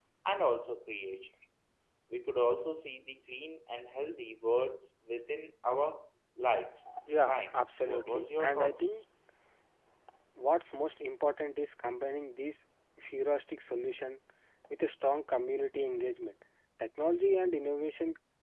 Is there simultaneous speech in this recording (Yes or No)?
Yes